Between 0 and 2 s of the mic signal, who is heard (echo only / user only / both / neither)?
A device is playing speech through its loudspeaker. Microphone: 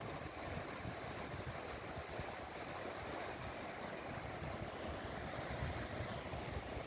neither